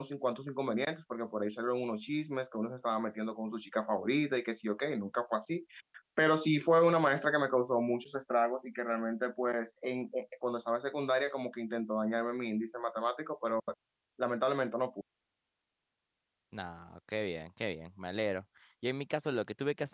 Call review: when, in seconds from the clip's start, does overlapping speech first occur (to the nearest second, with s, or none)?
none